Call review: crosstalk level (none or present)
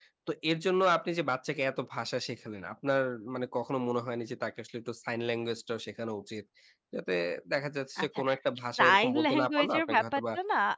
present